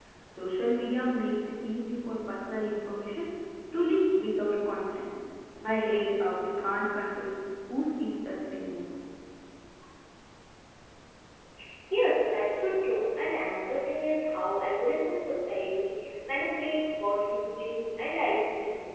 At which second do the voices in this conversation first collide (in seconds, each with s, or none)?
none